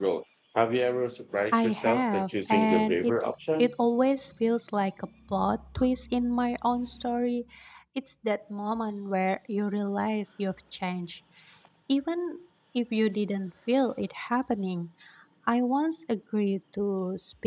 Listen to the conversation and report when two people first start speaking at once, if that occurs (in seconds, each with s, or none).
1.5 s